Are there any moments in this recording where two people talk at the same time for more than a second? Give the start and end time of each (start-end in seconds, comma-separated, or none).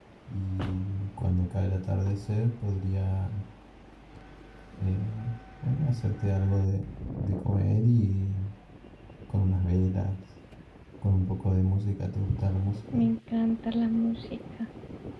none